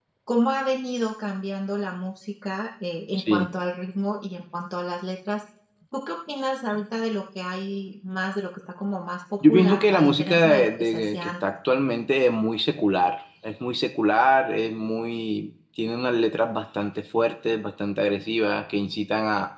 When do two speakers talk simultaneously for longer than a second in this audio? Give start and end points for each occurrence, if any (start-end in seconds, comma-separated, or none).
9.5-11.3